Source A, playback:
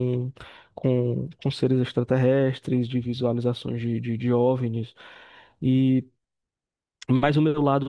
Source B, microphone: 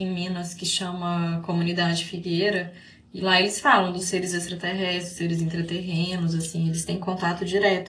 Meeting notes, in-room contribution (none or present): present